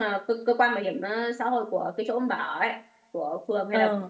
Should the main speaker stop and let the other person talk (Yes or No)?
No